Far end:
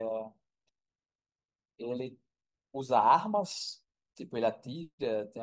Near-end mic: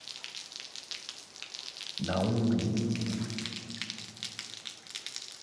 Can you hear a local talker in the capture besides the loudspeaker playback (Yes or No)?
Yes